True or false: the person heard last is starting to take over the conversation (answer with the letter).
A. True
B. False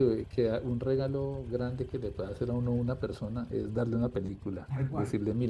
B